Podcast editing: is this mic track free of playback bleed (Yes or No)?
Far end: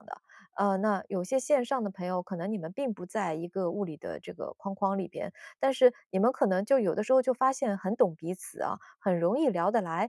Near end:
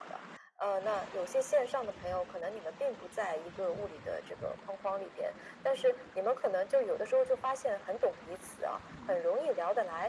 No